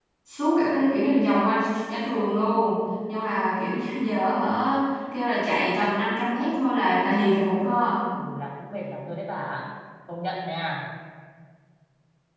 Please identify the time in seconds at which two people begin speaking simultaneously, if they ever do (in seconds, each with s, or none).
none